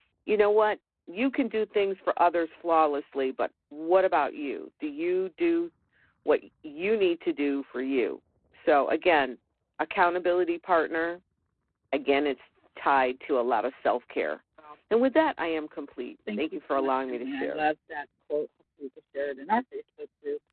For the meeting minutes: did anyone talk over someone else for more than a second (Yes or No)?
Yes